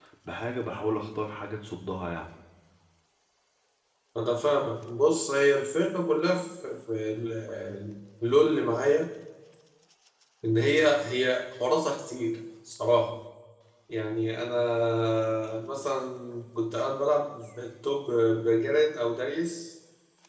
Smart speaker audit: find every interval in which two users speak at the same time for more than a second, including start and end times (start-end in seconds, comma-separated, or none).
none